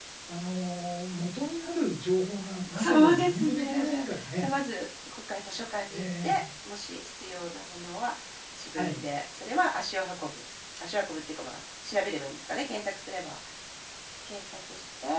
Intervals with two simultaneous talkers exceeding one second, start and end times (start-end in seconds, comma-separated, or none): 2.7-4.5